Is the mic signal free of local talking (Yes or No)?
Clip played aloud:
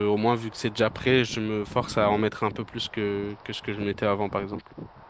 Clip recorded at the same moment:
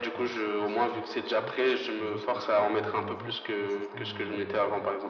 No